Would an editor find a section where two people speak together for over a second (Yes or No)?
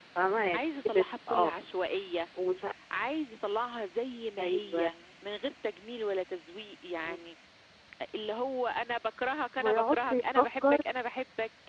Yes